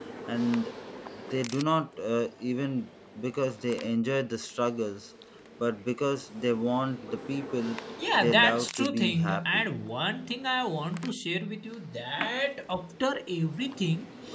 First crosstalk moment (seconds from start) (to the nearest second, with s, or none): 8 s